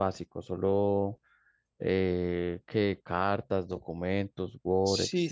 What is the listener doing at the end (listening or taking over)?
taking over